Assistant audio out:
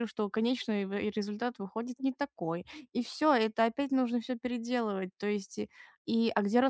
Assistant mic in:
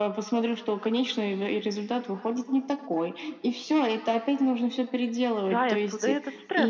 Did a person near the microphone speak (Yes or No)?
Yes